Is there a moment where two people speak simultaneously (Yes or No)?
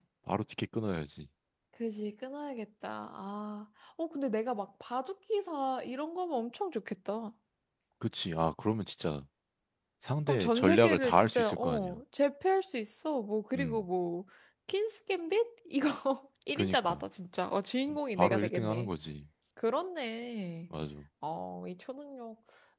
Yes